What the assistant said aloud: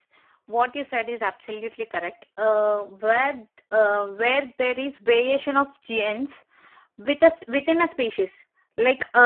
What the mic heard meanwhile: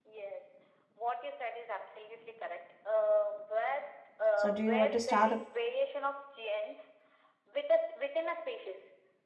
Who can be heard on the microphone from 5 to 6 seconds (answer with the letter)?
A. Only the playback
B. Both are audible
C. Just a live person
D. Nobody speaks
B